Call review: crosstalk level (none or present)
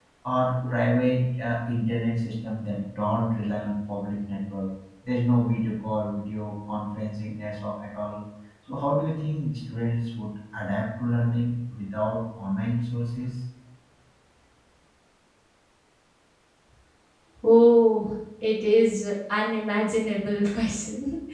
none